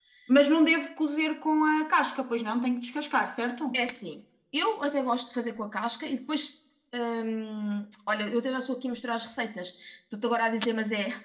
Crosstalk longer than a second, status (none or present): none